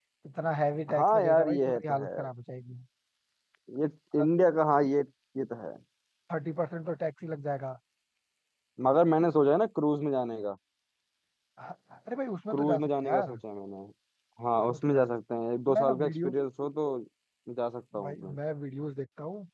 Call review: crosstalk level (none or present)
present